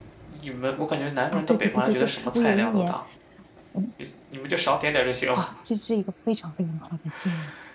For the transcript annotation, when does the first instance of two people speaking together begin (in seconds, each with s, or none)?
1.3 s